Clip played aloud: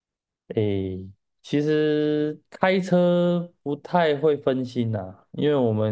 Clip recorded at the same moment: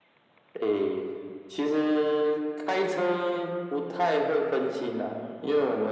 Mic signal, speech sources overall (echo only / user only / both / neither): echo only